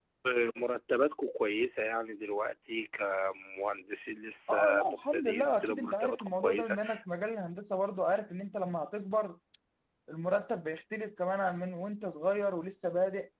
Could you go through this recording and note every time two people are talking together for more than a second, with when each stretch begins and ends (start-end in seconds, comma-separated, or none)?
4.5-6.8